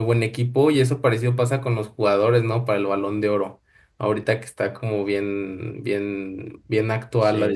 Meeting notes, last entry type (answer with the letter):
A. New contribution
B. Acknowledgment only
B